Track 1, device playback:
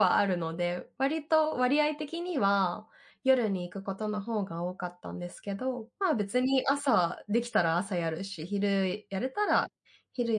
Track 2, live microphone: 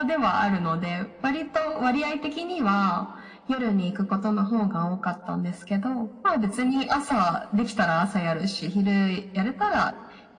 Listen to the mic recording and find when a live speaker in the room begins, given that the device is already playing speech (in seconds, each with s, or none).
none